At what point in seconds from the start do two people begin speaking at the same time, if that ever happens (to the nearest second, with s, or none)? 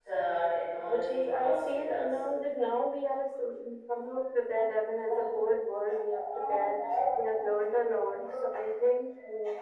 1 s